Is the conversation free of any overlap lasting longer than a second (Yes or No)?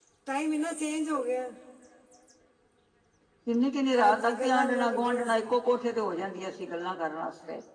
No